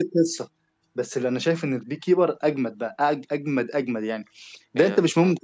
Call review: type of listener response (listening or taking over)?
listening